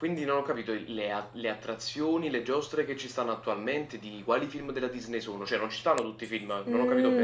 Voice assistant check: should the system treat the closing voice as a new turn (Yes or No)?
Yes